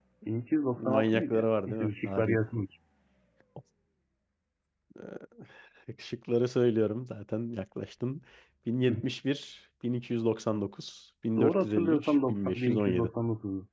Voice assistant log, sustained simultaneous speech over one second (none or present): present